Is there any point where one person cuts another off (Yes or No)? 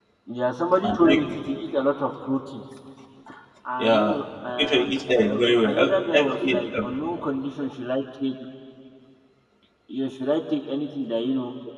Yes